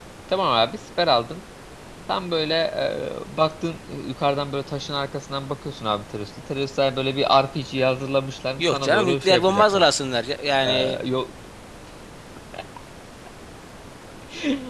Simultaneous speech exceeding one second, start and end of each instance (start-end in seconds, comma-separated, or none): 8.6-9.8